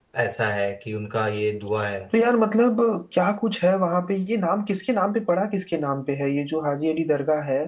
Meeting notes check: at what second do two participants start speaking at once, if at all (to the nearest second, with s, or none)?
none